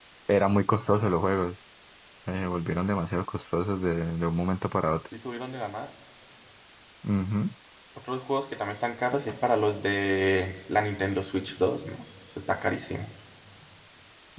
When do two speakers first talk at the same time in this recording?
none

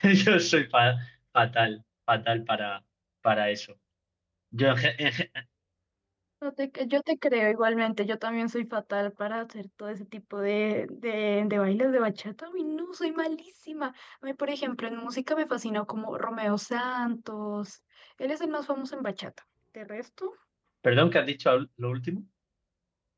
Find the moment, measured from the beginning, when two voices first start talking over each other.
none

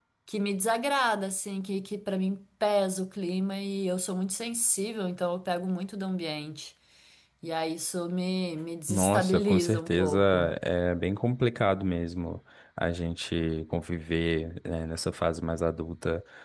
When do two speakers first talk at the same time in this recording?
8.9 s

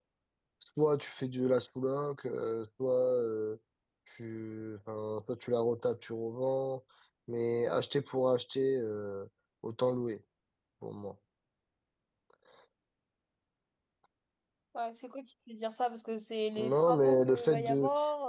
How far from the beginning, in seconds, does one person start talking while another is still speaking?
16.6 s

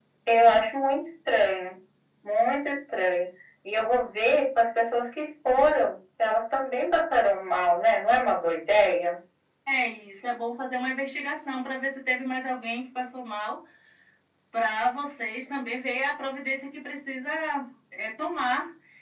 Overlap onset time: none

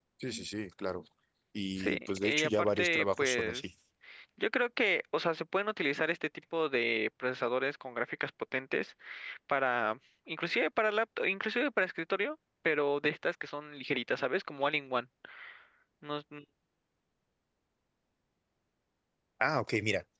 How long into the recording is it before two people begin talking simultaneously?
1.8 s

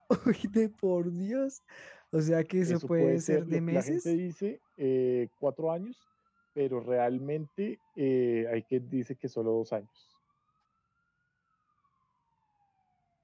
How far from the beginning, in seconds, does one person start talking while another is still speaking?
2.7 s

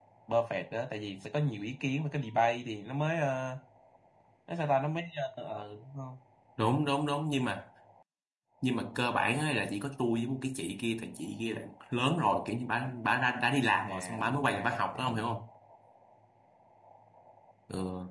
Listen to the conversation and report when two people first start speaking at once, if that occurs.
13.9 s

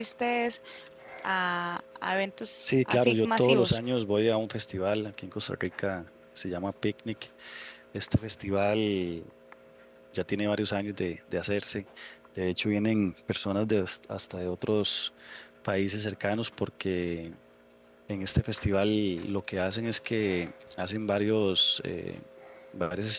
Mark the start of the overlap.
2.6 s

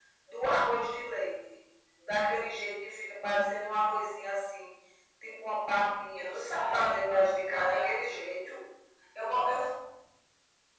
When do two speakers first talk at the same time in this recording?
6.2 s

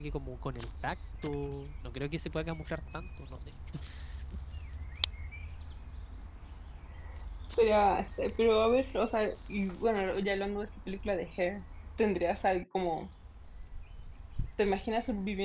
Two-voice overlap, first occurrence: none

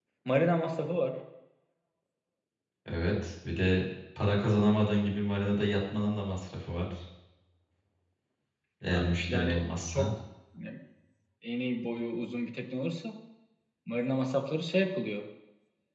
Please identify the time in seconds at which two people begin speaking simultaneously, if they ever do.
8.9 s

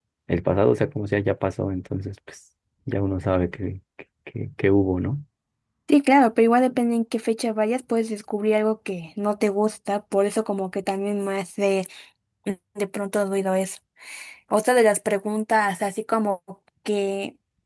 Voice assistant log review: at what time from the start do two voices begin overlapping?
none

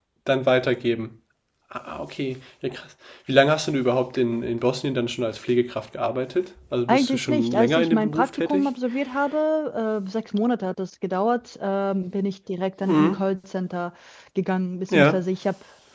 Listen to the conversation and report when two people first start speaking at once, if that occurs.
6.9 s

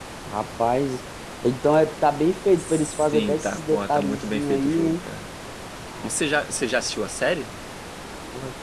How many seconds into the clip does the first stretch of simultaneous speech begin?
2.6 s

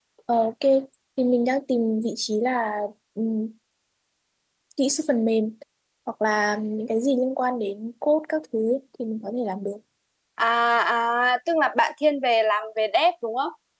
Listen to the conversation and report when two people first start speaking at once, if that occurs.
none

